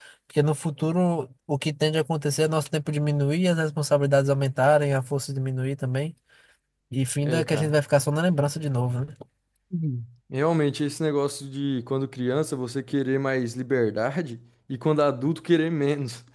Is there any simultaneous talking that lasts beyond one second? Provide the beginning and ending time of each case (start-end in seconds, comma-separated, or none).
none